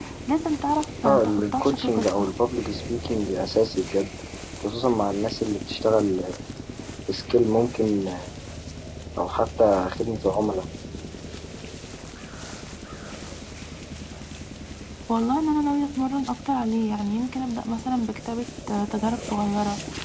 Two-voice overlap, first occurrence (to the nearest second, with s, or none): 1 s